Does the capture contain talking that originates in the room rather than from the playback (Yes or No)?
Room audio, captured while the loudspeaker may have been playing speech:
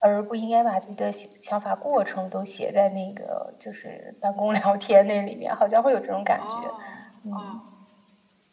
Yes